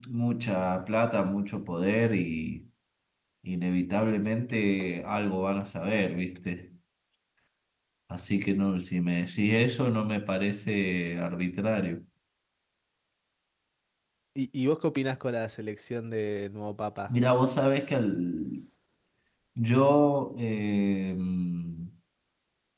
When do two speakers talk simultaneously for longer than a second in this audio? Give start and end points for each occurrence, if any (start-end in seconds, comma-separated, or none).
none